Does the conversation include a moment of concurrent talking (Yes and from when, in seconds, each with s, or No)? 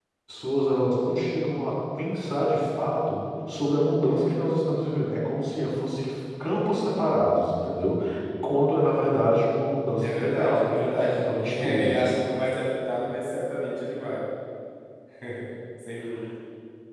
Yes, from 10.0 s